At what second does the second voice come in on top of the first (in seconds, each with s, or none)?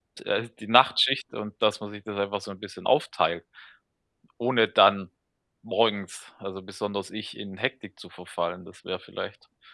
none